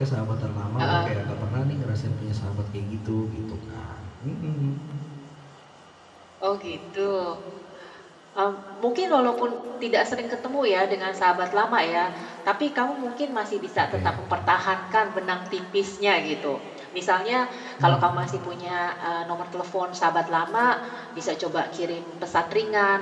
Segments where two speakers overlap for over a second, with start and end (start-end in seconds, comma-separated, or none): none